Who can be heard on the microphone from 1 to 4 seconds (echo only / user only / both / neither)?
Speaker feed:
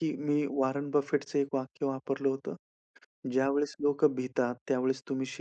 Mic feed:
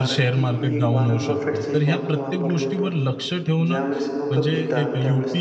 both